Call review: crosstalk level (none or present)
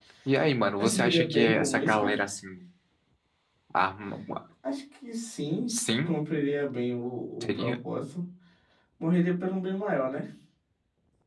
present